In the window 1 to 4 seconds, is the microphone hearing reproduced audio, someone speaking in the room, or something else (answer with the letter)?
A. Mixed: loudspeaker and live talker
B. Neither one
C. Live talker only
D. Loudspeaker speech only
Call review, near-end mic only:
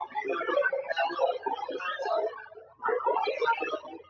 D